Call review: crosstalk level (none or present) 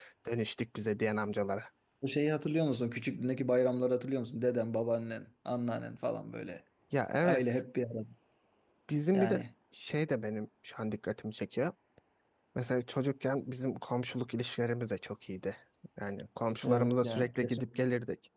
present